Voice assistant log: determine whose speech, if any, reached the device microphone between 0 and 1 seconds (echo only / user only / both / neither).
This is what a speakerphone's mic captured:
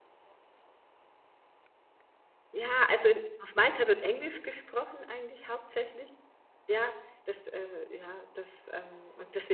neither